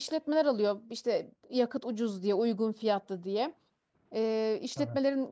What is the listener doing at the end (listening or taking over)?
listening